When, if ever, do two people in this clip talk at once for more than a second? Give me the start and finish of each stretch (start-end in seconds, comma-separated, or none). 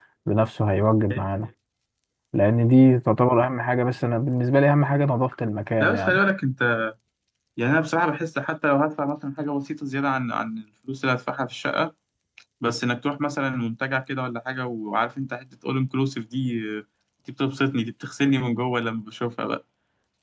none